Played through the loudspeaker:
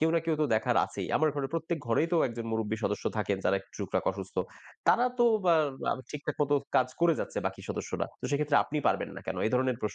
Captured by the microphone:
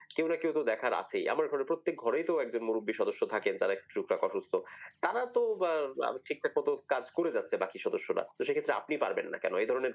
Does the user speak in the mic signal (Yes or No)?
No